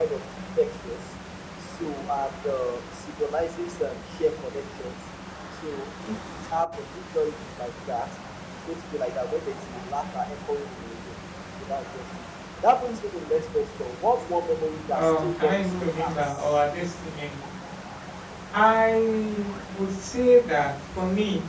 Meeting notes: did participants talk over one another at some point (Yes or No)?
Yes